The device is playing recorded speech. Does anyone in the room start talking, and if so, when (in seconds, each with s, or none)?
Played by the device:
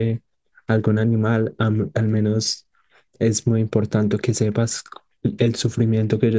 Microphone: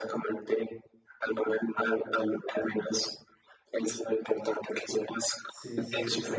5.4 s